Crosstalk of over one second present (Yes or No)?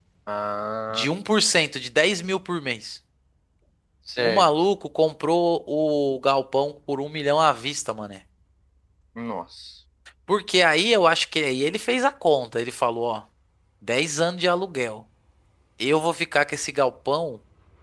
No